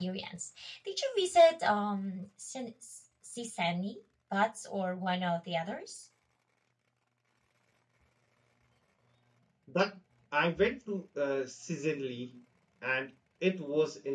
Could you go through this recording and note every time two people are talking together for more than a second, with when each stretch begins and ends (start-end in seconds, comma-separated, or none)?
none